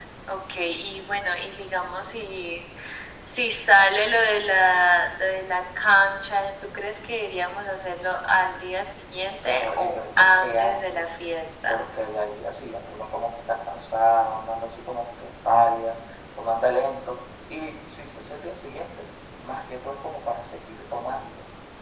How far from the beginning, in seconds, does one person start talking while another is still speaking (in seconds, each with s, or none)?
9.5 s